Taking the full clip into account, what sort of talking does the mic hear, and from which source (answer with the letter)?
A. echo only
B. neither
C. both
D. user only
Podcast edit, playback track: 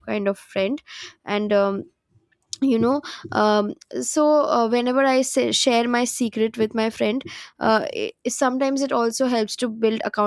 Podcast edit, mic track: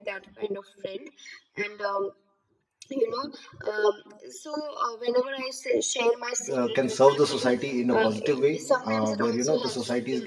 C